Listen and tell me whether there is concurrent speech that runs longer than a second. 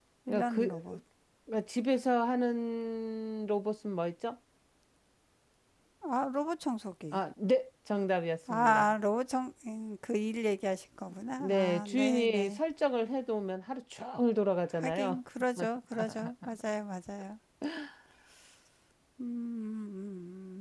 Yes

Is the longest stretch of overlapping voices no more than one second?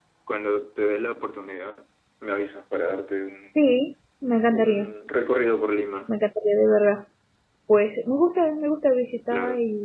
Yes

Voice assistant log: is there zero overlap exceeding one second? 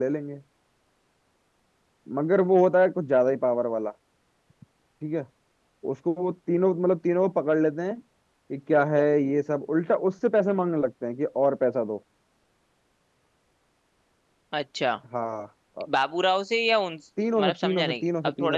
No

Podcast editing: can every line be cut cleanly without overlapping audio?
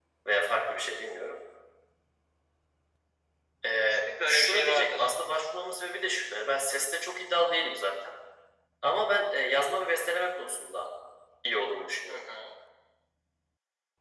No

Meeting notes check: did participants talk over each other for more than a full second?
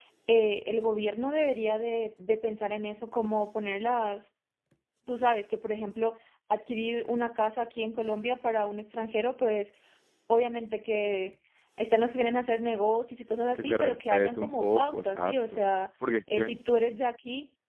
Yes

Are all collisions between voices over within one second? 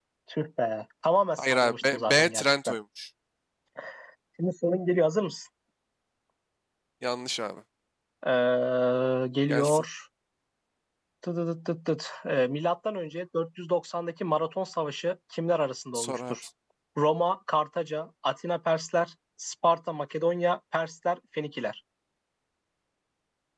No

